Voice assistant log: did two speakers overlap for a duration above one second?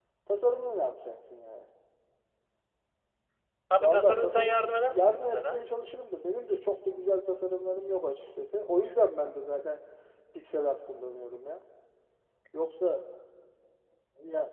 Yes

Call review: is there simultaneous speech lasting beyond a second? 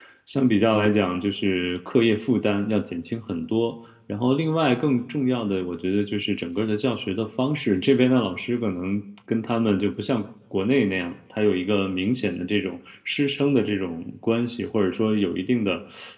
No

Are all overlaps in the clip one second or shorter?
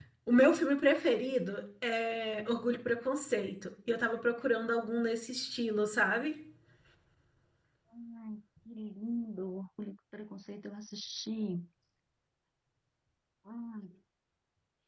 Yes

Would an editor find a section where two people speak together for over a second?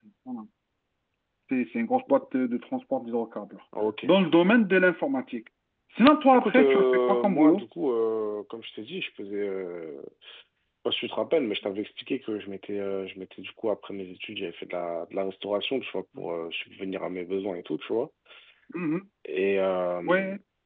Yes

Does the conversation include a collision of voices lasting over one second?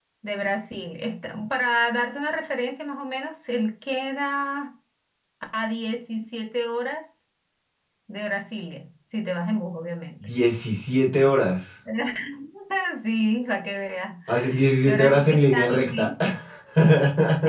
Yes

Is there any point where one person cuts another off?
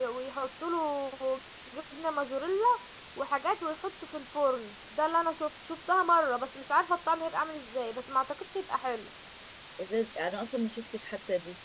No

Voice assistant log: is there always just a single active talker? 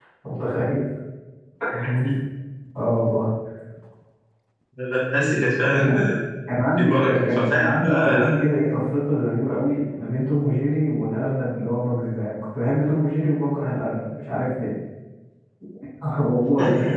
No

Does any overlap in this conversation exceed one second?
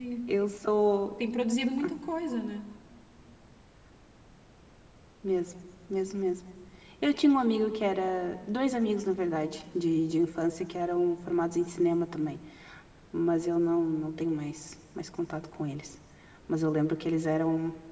No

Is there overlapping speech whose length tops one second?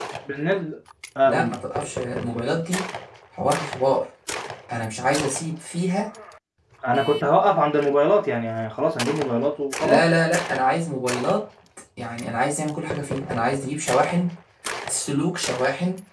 No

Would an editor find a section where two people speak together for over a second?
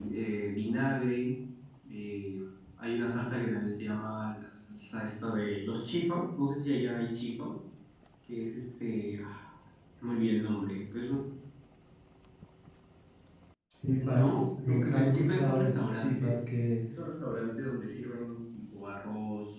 Yes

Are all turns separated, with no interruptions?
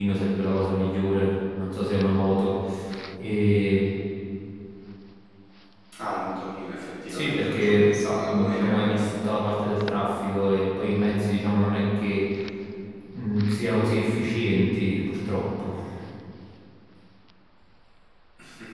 No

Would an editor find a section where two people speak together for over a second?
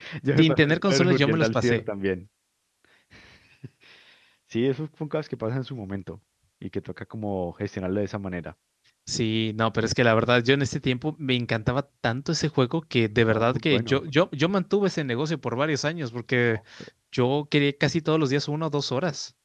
Yes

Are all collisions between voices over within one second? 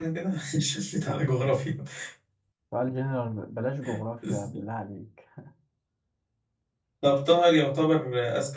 Yes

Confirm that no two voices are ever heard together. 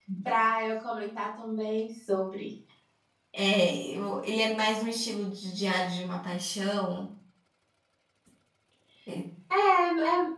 Yes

